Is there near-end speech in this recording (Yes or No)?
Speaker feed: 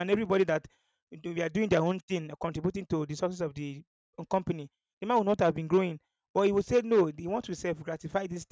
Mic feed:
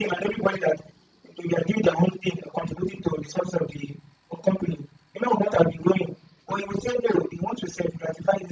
No